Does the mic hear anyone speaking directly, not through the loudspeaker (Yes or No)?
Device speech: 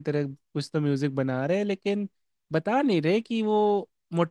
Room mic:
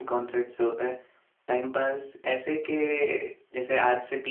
Yes